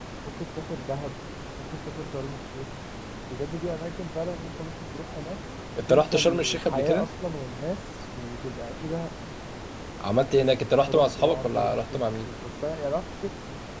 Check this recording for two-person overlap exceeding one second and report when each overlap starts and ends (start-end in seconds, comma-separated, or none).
5.9-7.1, 10.9-12.3